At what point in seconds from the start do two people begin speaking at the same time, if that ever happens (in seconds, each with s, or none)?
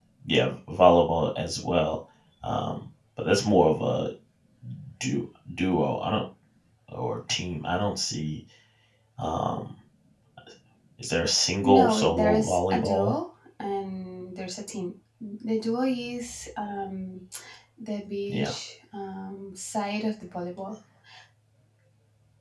11.6 s